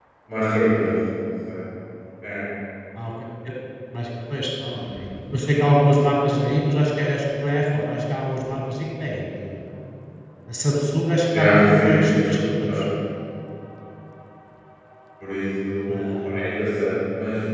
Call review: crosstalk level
present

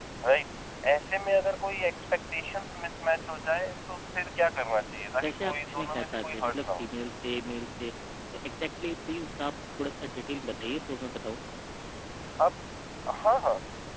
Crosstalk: present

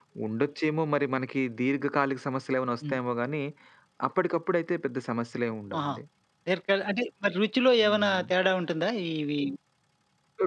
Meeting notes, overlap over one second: none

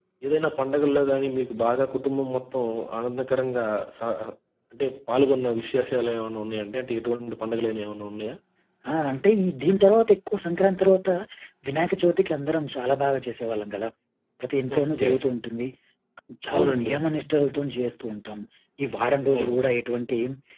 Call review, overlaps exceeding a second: none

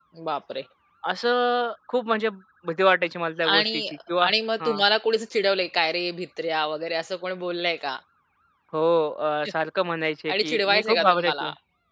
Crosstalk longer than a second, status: present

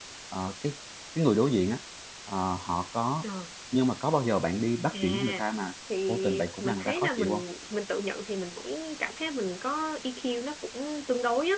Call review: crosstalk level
present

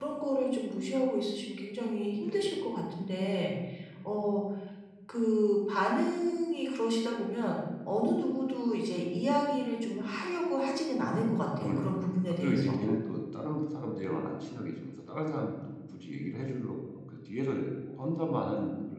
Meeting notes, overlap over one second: present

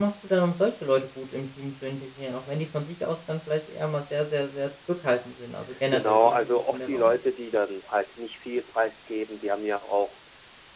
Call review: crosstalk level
present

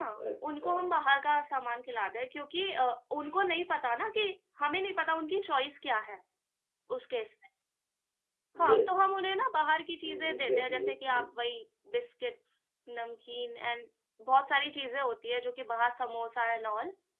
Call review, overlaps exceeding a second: present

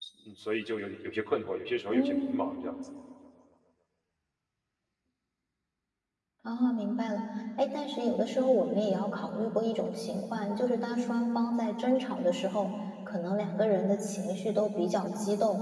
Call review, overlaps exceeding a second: none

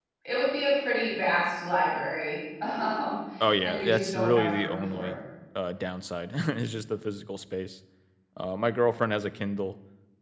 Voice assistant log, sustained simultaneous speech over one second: present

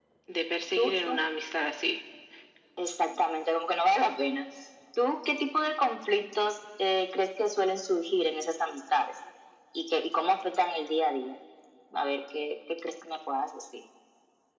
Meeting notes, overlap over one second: none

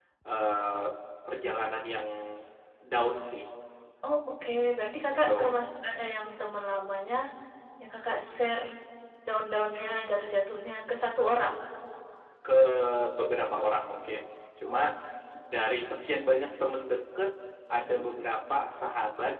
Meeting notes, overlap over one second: none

